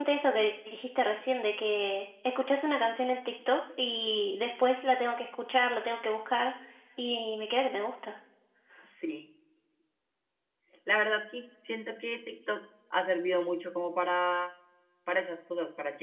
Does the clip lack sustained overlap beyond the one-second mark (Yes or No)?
Yes